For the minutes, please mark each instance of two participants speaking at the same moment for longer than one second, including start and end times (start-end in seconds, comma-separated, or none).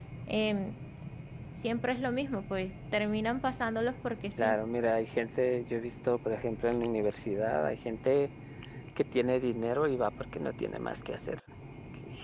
none